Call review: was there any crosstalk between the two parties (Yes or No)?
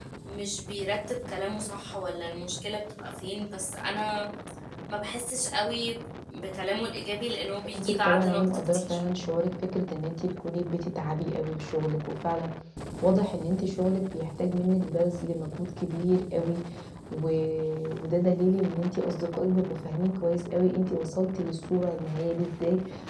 Yes